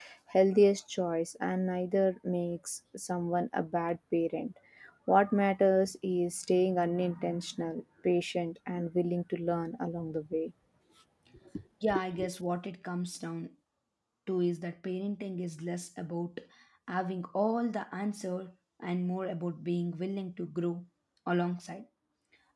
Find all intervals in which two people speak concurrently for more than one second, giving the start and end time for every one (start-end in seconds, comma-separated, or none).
none